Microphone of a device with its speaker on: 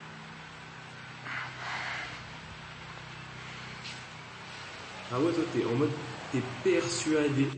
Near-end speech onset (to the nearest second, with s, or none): 5 s